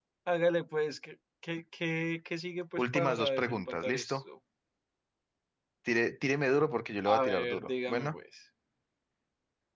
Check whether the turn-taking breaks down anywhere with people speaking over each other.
Yes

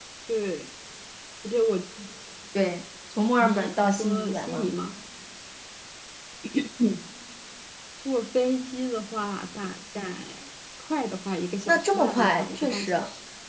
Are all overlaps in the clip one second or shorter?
No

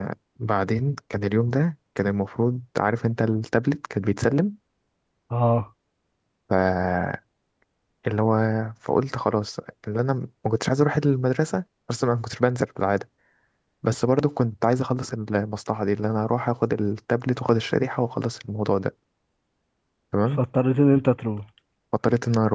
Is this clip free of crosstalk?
Yes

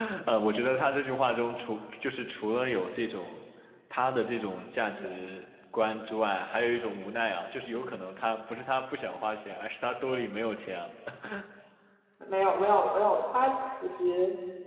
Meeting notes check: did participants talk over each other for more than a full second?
No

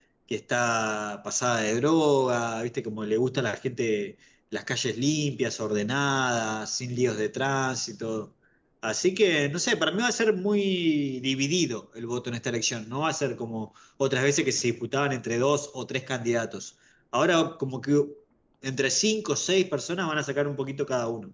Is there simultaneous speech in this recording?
No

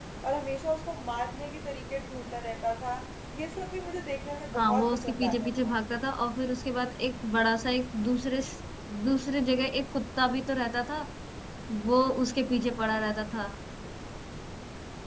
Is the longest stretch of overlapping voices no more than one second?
No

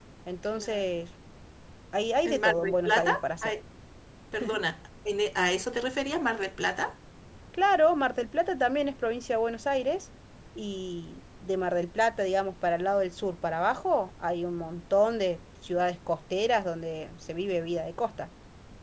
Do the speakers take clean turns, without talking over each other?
No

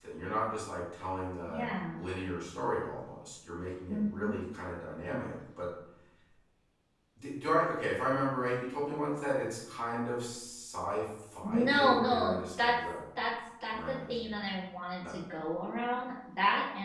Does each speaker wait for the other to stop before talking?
No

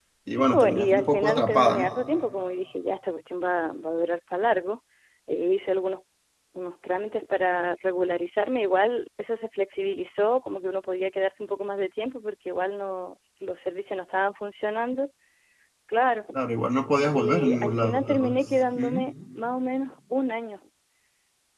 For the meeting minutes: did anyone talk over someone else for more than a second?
Yes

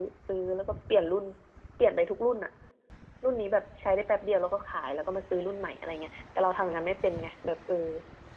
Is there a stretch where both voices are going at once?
No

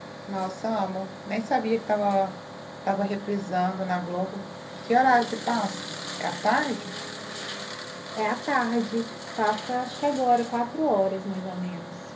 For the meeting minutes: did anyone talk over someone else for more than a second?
No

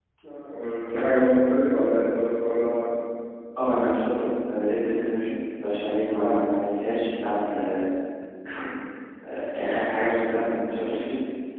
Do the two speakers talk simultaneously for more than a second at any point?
No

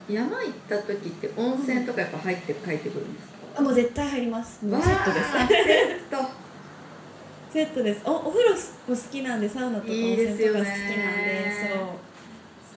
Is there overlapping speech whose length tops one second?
Yes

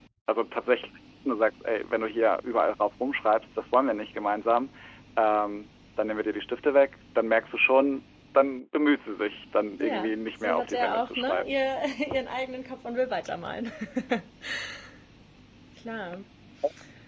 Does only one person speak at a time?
No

